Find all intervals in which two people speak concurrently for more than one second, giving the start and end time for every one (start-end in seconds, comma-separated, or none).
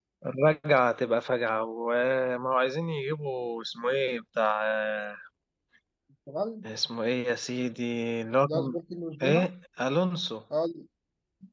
none